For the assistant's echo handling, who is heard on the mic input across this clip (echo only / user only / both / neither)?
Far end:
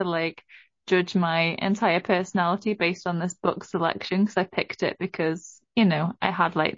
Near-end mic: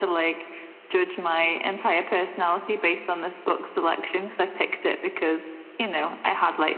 echo only